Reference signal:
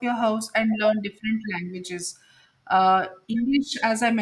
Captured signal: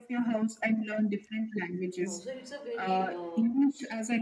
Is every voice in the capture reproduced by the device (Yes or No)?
No